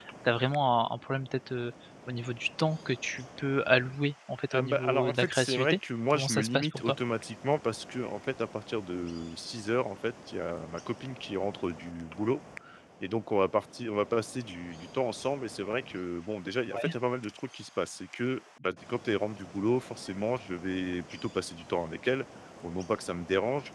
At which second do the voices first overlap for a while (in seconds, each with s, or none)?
4.5 s